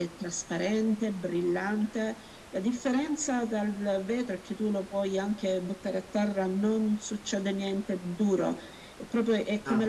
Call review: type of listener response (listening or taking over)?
listening